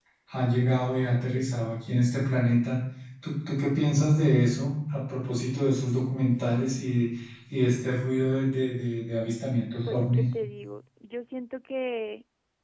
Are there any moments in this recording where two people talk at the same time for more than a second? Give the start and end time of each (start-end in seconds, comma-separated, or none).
none